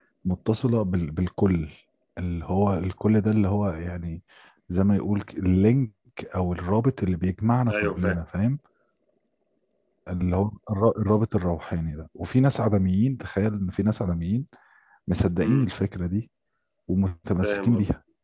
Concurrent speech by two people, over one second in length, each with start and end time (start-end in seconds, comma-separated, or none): none